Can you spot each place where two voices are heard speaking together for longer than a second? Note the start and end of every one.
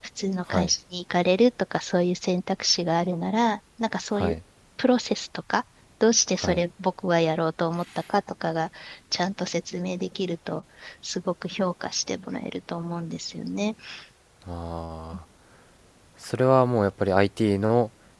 none

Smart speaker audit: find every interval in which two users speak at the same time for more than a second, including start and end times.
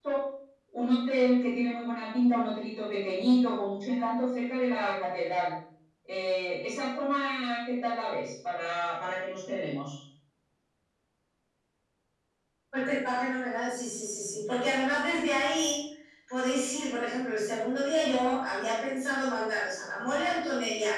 none

